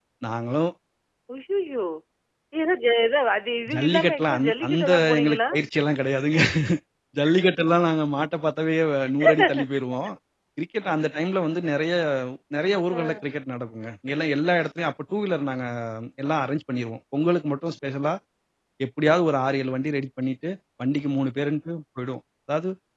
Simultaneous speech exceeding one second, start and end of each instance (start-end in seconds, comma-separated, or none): 3.7-5.4